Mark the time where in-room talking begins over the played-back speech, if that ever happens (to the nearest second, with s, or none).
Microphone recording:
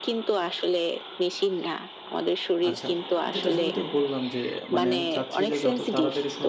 3 s